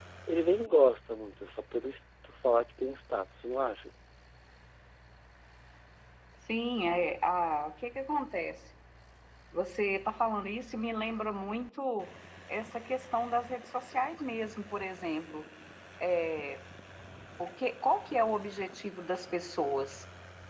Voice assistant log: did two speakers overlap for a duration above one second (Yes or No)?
No